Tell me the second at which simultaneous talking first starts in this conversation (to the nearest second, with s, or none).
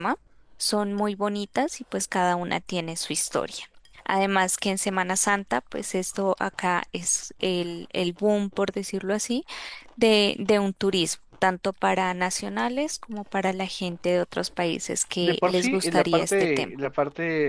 15 s